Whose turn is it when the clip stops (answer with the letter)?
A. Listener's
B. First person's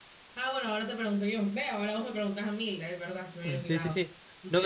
A